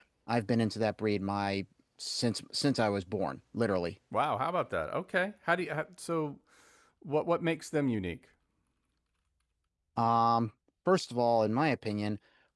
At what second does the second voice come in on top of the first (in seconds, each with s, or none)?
none